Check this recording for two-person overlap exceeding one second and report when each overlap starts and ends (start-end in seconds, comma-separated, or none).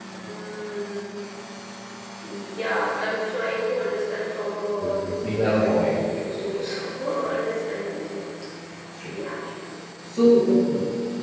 4.8-6.6